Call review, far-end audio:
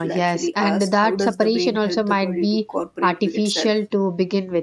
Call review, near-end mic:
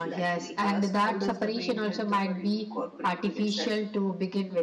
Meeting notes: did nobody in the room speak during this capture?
Yes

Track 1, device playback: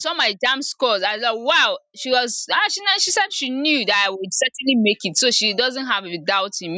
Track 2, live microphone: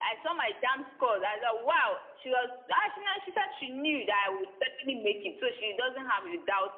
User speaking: No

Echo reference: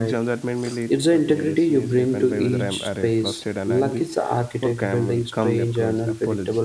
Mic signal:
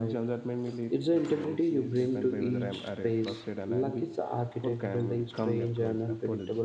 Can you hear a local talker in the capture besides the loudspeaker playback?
No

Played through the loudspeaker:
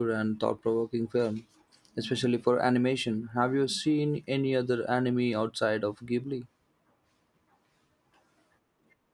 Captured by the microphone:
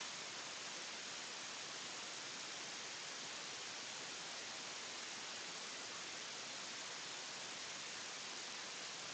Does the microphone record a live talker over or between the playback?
No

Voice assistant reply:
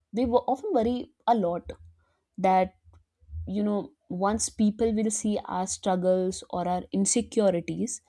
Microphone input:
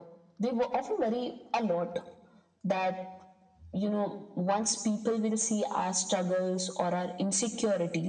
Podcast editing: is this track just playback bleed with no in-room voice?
Yes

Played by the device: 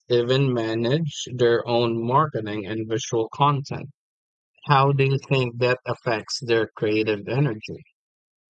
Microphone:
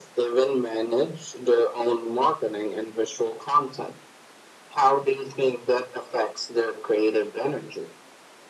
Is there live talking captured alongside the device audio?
No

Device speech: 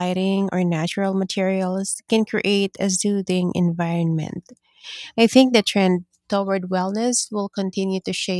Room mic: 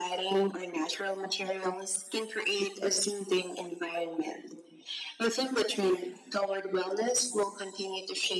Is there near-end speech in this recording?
No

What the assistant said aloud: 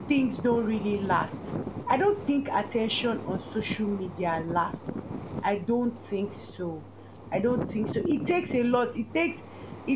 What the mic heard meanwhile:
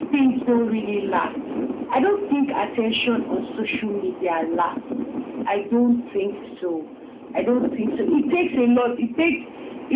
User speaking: No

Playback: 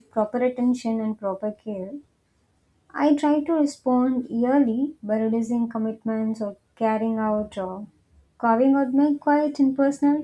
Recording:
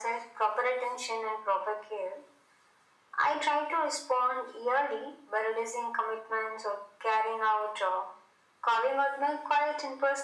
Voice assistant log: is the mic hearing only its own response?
Yes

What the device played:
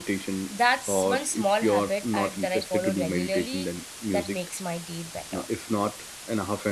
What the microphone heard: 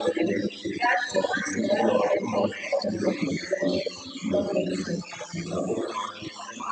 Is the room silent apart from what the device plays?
Yes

